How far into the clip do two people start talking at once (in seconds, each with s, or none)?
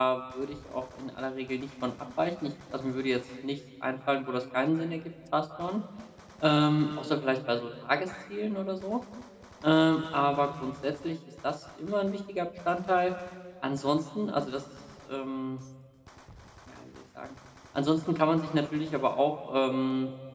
none